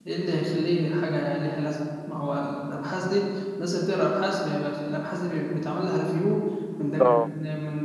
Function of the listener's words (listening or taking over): listening